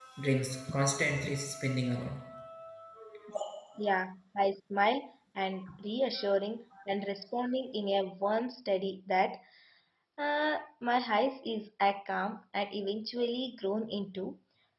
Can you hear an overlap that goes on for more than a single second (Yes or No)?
No